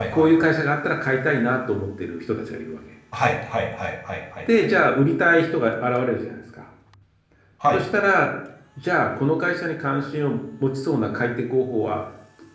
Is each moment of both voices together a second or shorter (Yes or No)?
Yes